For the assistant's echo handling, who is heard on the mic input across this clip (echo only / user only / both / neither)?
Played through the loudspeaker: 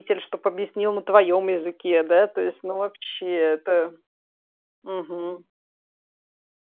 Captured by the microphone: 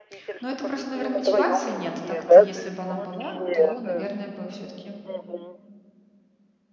both